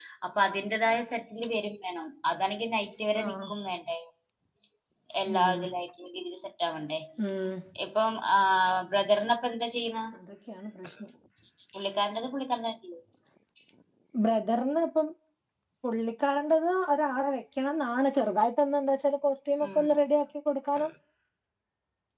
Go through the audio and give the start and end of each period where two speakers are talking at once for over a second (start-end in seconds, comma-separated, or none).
none